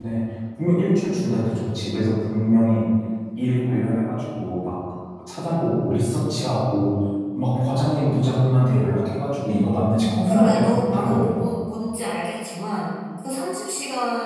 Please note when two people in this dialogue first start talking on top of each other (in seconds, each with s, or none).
10.3 s